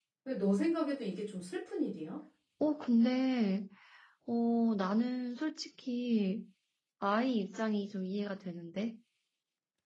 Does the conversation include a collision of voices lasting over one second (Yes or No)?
No